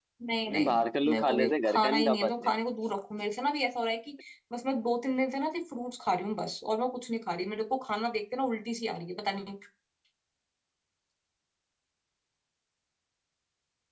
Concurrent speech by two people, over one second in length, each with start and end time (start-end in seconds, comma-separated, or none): 0.5-2.5